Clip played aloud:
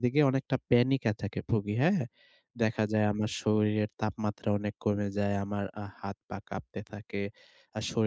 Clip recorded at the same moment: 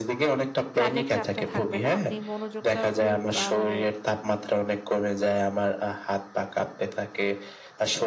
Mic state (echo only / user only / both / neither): both